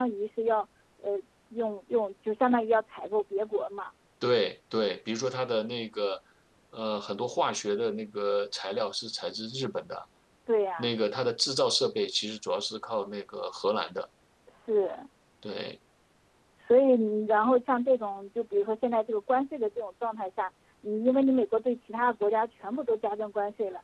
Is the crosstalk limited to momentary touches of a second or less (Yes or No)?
Yes